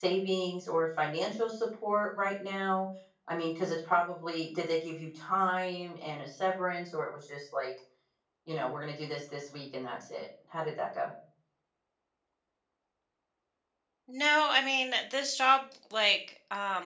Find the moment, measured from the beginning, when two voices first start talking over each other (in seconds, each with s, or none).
none